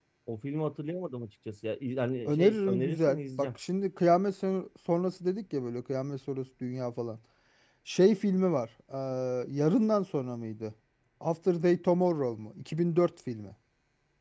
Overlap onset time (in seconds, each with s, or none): 2.2 s